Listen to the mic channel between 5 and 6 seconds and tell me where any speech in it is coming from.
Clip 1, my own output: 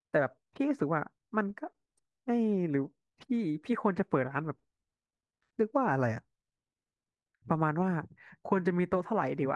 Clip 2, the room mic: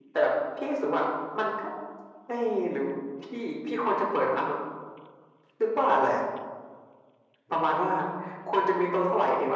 echo only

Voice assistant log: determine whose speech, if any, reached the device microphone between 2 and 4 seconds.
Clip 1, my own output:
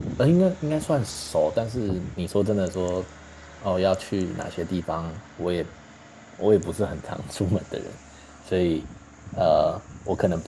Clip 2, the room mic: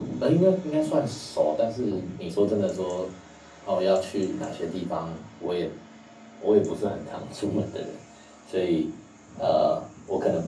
echo only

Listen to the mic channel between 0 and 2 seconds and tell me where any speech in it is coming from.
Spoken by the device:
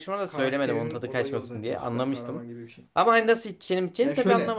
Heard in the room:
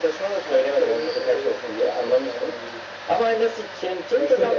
echo only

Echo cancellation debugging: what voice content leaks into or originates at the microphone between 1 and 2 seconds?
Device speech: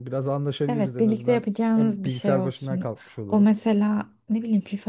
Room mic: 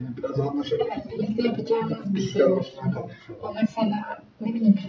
echo only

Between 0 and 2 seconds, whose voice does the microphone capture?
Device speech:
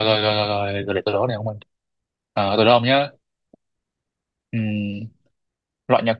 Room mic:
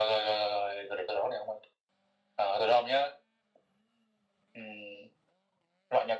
echo only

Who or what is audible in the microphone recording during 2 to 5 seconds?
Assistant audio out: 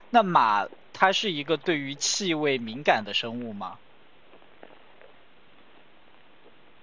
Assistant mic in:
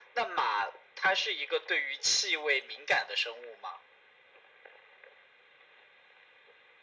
echo only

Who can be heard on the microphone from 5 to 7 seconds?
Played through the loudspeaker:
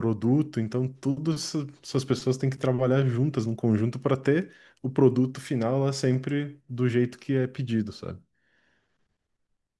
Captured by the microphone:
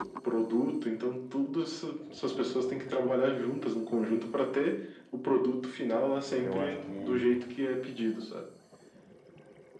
both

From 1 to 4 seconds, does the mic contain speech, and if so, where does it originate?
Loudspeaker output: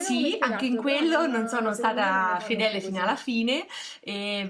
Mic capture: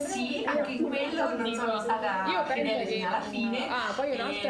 both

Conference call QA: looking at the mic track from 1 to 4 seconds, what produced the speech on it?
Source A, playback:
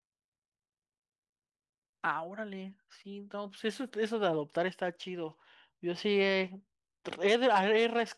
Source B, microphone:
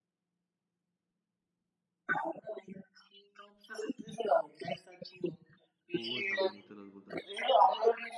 echo only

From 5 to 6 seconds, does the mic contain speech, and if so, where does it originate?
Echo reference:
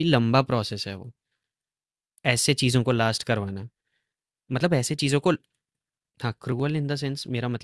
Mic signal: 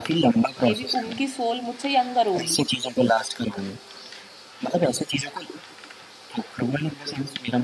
echo only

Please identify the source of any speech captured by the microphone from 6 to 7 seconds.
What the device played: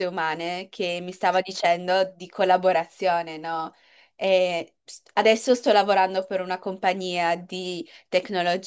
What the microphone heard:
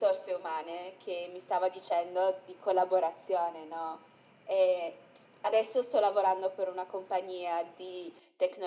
echo only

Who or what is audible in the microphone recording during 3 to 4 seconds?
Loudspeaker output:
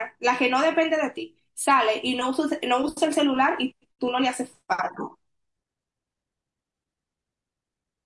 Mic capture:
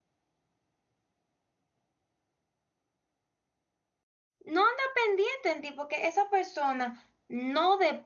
neither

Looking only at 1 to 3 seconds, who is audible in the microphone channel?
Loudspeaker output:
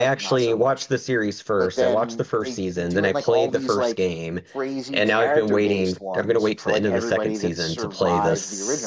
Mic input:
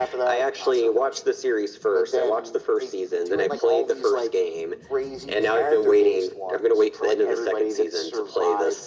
echo only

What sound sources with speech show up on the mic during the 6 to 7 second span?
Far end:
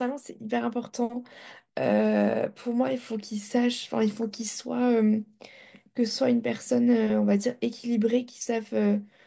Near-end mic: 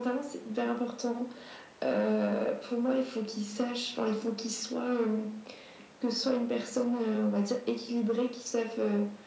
echo only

